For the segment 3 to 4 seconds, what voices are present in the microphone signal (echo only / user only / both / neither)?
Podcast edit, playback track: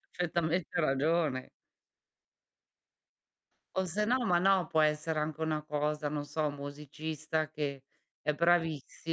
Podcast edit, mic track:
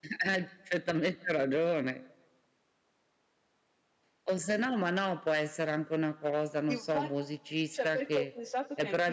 neither